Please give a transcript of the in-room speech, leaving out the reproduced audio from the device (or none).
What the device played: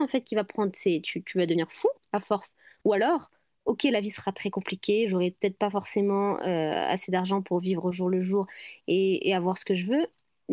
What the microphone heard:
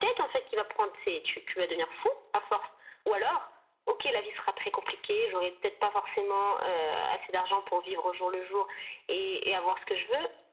none